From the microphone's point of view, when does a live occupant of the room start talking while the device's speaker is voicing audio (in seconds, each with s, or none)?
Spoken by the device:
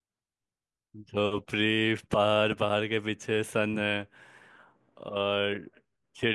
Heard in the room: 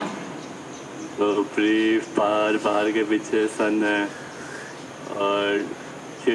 none